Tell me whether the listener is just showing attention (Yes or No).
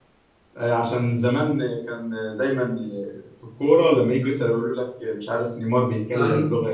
Yes